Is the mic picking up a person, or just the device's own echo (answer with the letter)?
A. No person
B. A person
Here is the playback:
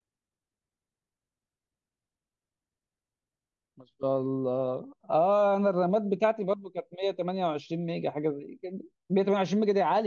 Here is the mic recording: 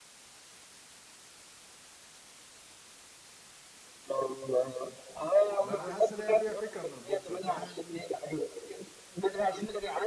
B